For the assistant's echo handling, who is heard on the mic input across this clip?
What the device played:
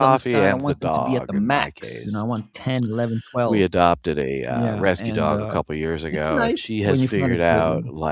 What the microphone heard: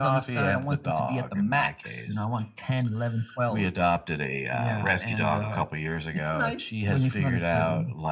echo only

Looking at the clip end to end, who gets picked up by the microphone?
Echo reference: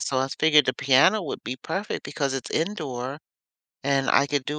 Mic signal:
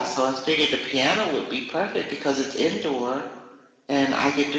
echo only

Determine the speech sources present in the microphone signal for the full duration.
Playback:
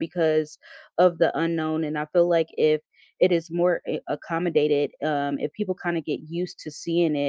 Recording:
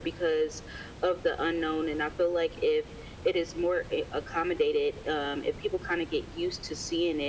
echo only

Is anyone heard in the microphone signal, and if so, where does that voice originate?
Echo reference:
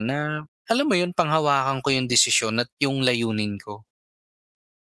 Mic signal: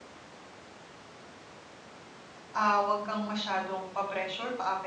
user only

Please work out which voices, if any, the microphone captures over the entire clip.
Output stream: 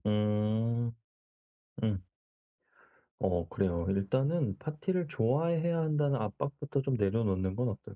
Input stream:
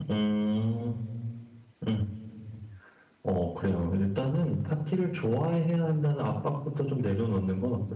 echo only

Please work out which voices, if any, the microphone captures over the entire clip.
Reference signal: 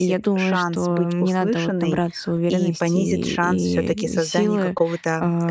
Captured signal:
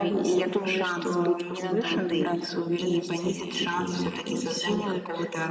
echo only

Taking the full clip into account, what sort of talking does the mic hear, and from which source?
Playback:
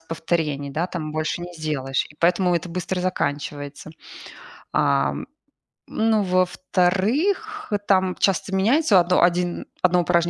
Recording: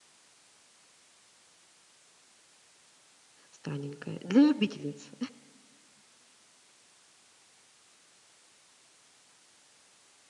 user only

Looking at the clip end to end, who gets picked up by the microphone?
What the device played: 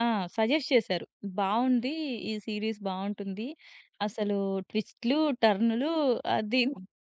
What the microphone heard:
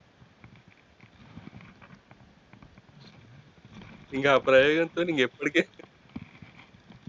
user only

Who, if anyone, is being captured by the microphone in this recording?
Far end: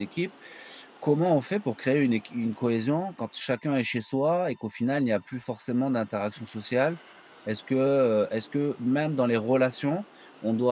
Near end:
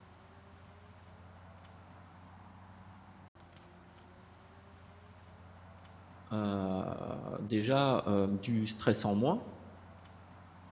user only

